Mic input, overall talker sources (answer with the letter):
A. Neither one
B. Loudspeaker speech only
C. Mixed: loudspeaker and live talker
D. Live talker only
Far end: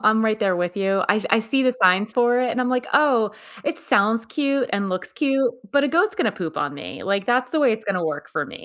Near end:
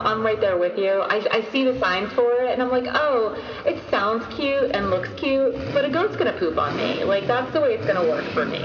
B